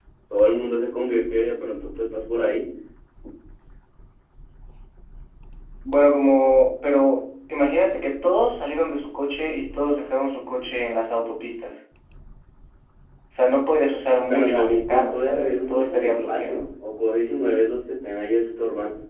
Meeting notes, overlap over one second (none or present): present